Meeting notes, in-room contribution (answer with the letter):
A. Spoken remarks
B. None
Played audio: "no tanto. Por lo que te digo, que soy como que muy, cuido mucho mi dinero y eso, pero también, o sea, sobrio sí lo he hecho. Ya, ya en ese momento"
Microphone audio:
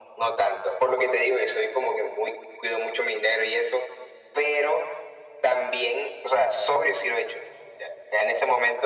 B